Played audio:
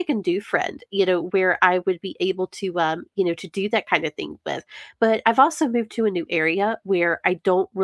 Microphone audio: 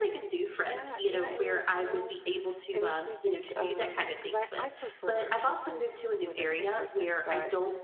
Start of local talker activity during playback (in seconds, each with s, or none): 0.6 s